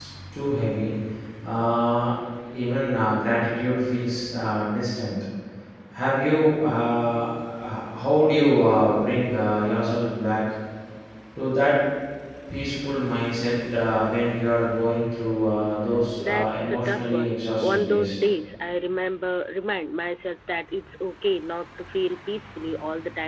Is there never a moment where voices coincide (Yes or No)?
No